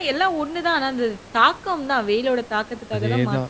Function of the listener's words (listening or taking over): taking over